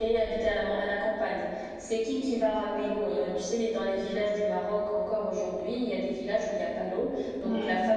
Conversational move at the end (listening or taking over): listening